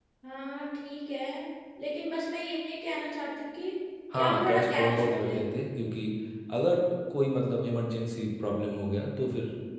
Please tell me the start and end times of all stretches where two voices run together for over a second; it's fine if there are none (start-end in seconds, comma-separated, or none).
4.1-5.4